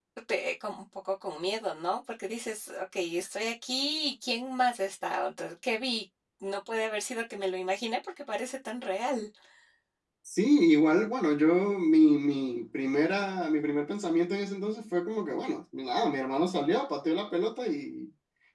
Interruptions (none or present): none